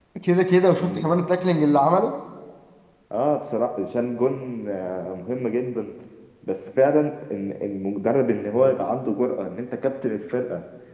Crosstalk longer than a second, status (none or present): none